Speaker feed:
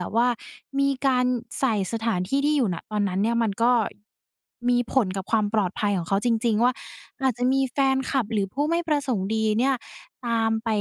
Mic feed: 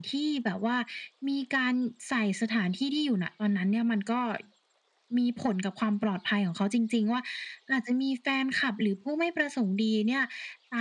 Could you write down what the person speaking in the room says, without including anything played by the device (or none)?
none